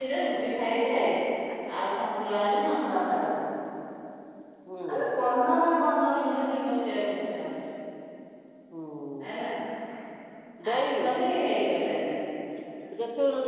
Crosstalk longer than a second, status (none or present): none